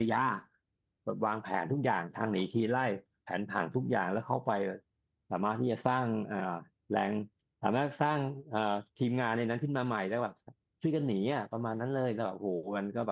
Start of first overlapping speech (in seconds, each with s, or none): none